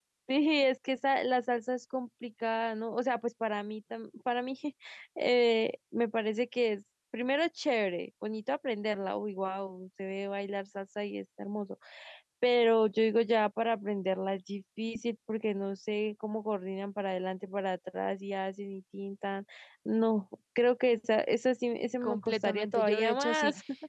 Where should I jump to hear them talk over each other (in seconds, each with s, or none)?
22.0 s